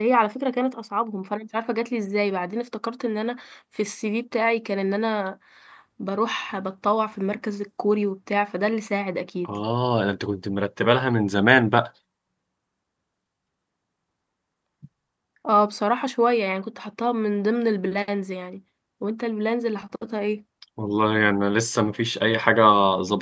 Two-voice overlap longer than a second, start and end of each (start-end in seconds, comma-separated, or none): none